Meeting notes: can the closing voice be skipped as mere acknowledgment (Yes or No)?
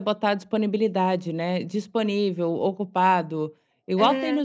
Yes